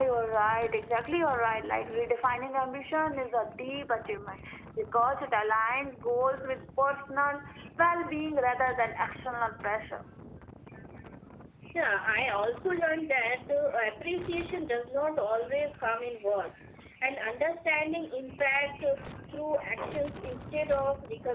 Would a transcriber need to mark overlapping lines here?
No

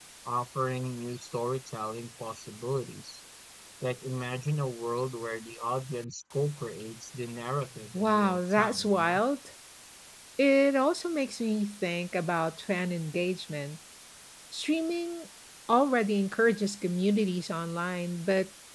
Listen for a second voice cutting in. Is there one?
Yes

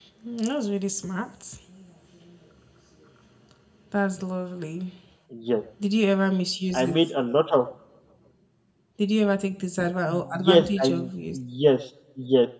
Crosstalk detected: Yes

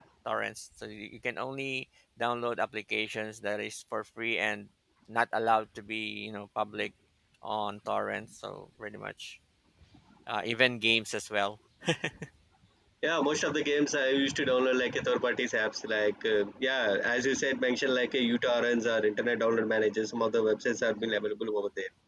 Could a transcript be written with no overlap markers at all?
Yes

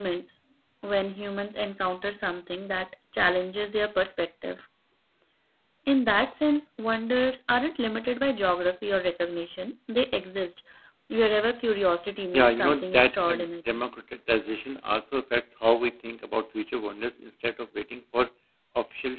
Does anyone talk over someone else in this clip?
Yes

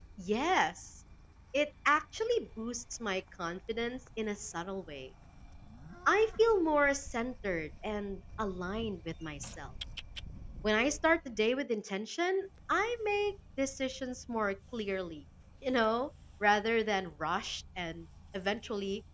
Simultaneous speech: No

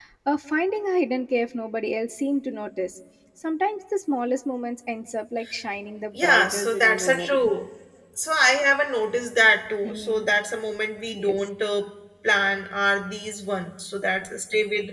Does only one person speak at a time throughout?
No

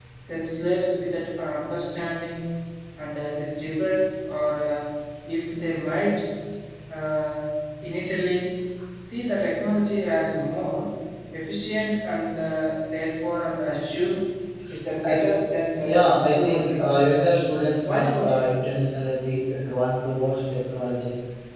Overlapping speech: Yes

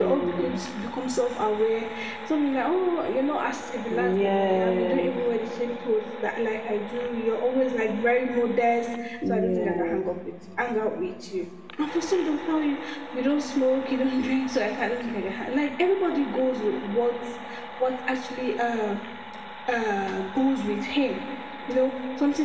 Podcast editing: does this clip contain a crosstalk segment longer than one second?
Yes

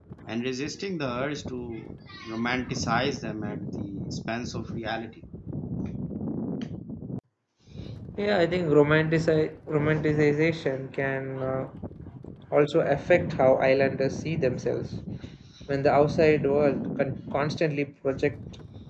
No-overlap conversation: Yes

